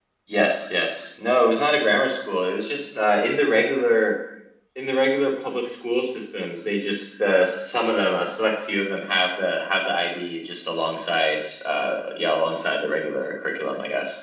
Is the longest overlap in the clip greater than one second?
No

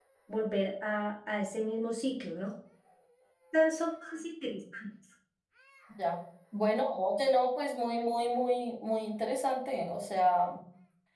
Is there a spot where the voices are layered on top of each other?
No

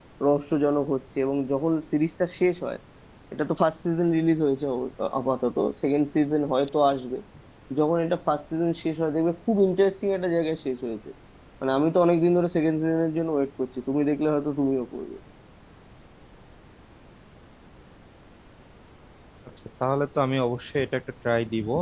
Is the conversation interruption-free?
Yes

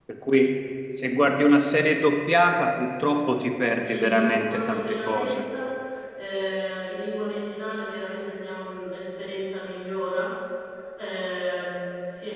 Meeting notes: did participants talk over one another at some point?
Yes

